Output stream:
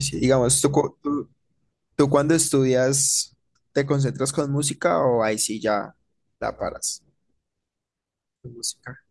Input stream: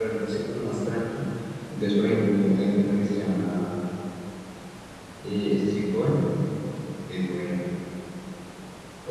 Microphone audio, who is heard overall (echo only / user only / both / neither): user only